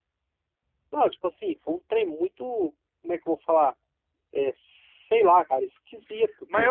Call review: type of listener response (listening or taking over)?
taking over